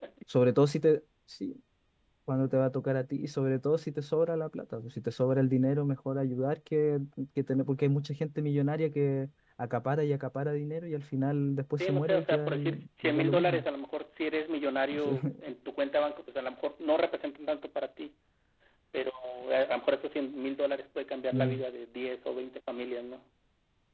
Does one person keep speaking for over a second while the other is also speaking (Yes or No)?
Yes